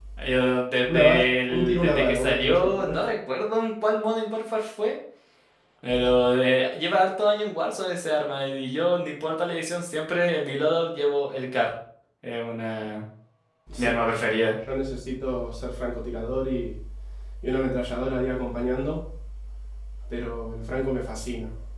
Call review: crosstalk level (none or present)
present